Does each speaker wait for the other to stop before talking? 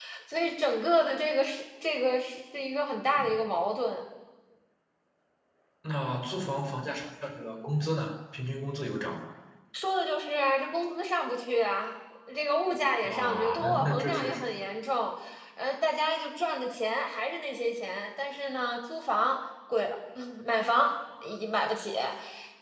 No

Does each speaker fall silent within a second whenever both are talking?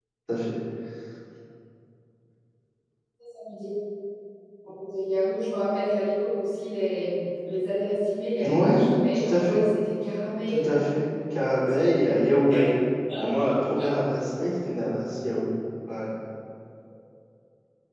No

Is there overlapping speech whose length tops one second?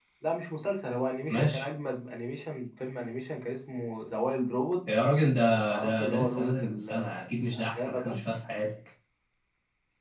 Yes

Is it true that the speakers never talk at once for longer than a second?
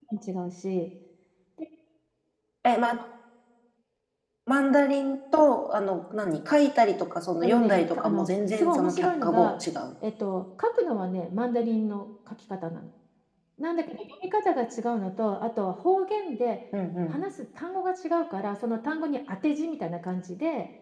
No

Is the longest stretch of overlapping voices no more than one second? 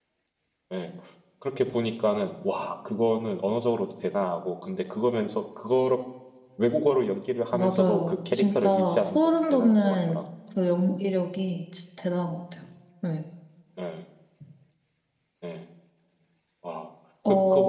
No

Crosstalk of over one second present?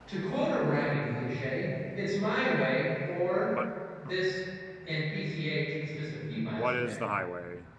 No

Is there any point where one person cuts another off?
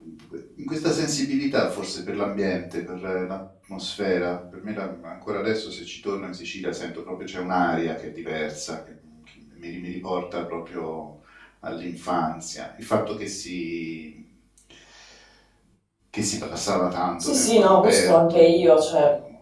Yes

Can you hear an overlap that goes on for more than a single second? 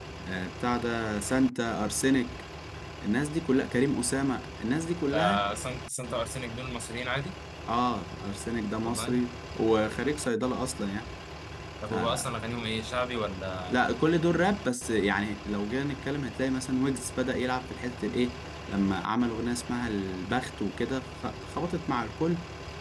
No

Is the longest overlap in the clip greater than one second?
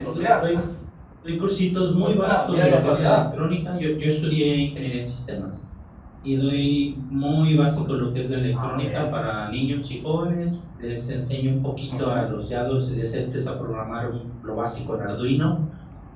Yes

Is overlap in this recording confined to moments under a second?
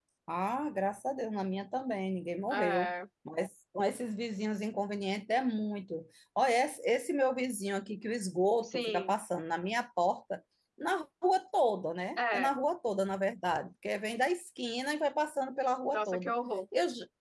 Yes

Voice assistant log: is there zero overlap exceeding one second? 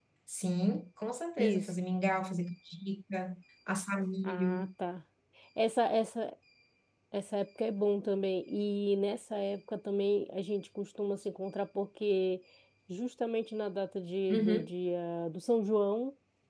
Yes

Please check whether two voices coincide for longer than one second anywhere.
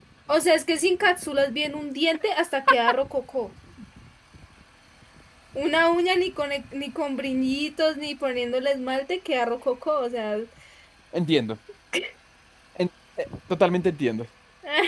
No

